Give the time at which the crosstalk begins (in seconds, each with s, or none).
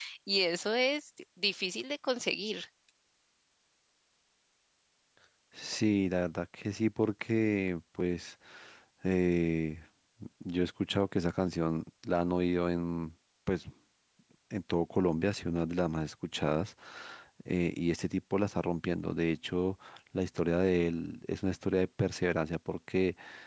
none